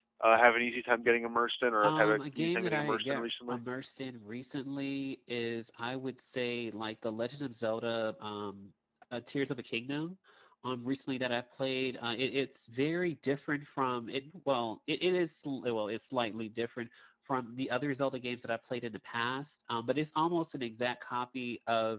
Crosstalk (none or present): present